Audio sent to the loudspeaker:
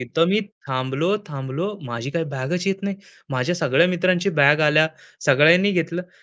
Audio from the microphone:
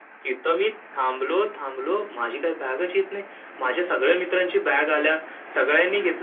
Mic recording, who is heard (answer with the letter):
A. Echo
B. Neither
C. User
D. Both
A